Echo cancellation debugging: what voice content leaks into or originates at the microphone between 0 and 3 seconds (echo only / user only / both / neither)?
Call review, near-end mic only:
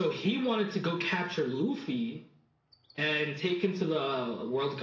echo only